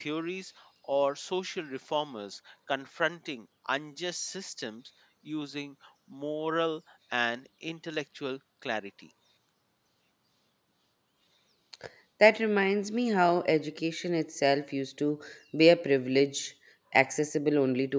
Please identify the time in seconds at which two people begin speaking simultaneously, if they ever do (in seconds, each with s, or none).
none